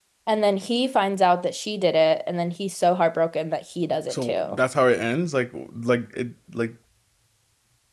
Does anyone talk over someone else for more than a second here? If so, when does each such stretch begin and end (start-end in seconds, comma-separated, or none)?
none